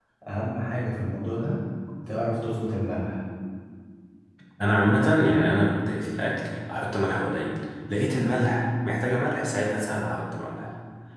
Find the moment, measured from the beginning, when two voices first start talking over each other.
none

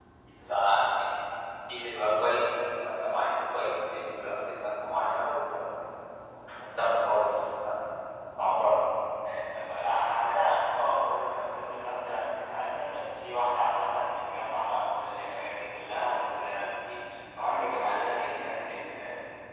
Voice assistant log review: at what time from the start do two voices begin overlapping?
none

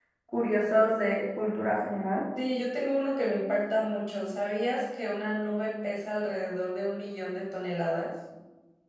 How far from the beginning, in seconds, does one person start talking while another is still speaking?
none

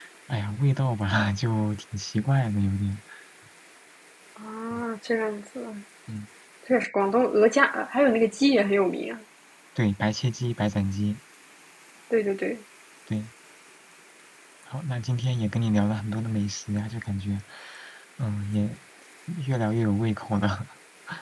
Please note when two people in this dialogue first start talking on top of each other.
none

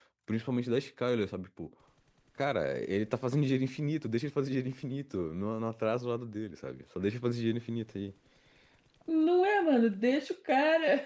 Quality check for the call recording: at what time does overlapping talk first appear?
none

